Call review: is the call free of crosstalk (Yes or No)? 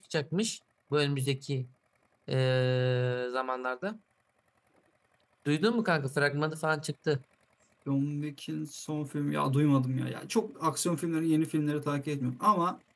Yes